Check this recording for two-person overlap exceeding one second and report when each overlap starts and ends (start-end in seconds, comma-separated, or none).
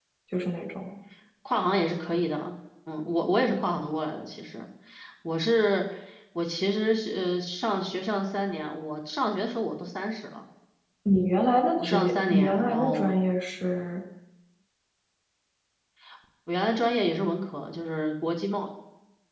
11.8-13.1